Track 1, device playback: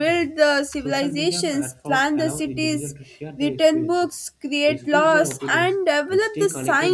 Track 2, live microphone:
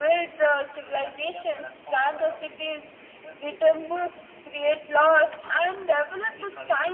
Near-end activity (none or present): none